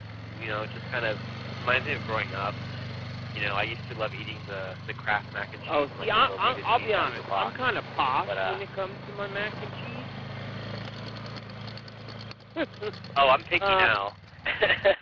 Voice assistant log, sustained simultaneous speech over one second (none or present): present